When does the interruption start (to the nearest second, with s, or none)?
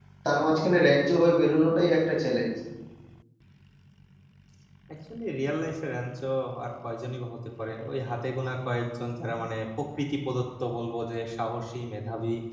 none